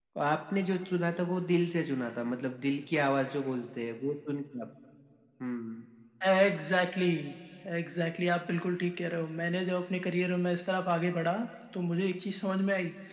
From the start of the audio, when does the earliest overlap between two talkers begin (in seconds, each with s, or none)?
none